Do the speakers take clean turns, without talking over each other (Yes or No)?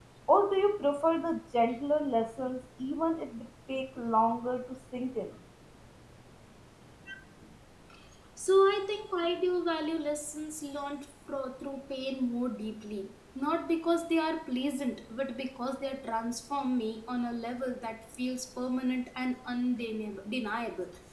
Yes